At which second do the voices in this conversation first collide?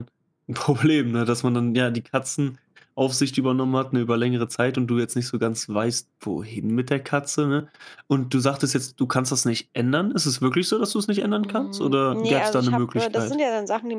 11.4 s

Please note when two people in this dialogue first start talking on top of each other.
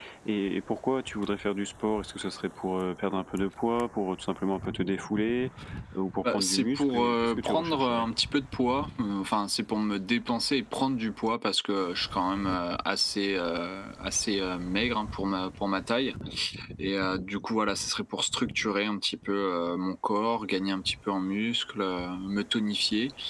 6.3 s

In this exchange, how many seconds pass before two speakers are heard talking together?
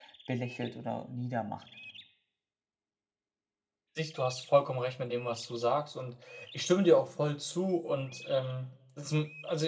none

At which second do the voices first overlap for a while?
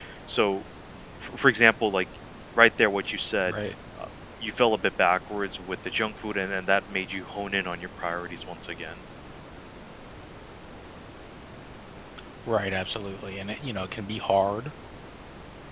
none

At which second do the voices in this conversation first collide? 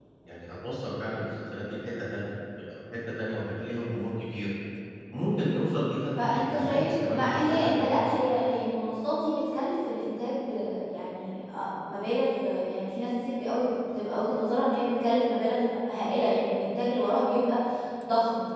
6.2 s

